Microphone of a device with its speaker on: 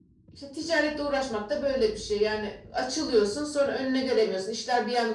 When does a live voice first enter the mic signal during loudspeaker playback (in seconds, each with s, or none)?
none